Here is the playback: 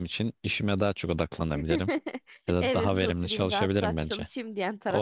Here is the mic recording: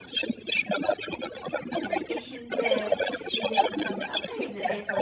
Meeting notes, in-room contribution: present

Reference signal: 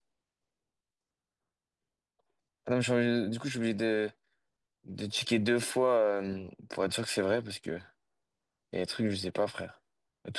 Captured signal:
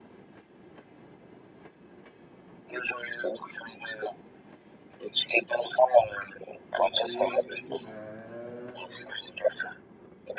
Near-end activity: present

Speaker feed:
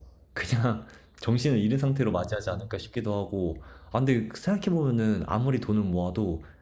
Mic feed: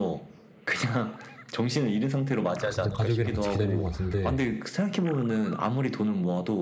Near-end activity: present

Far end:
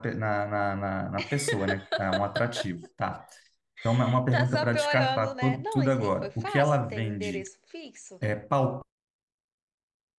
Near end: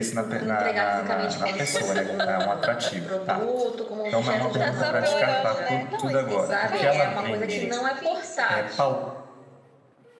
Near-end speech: present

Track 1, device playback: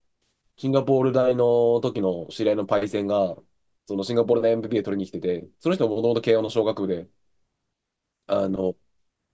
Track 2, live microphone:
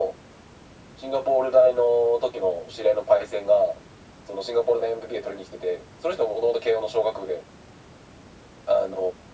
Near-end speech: none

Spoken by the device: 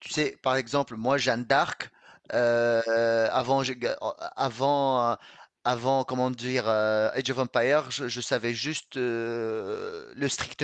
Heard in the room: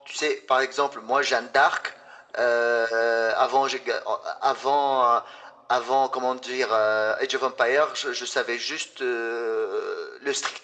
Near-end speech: none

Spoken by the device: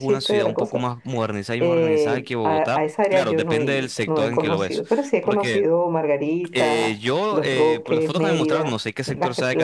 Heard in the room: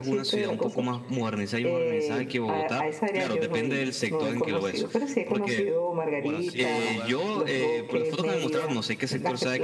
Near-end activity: present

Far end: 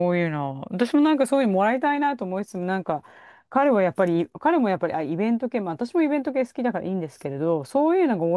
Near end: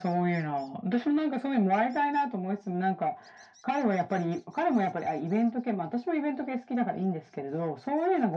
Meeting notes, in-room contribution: none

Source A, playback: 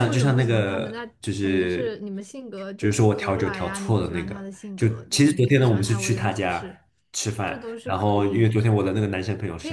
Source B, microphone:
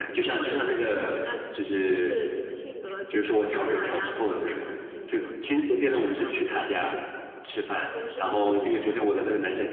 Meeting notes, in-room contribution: none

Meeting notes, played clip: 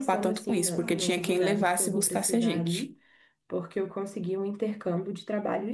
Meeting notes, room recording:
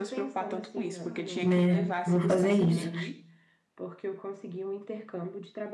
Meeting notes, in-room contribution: present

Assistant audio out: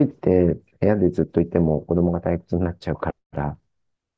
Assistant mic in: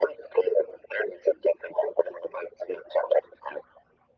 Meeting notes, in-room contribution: none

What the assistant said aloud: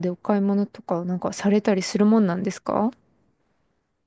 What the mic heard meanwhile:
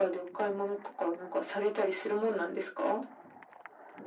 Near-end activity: none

